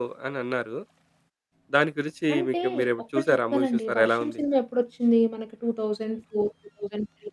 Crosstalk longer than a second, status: present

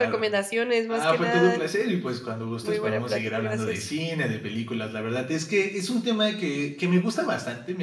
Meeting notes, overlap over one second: present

